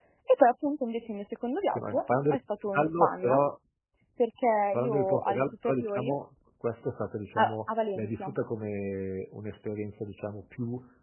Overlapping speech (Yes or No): Yes